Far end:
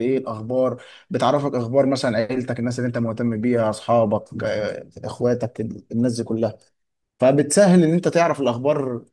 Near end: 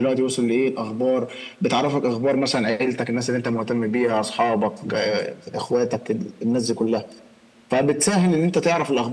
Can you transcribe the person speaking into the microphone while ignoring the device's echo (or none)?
none